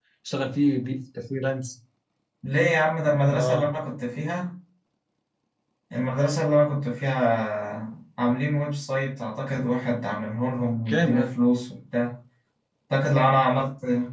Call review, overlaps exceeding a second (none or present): none